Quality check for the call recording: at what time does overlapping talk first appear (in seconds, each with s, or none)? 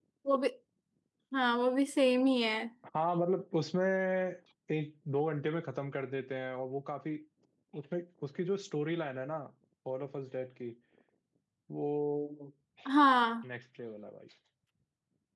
none